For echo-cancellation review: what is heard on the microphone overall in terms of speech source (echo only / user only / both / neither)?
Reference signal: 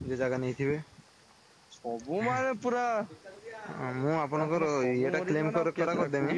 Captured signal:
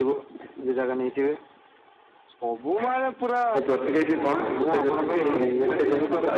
both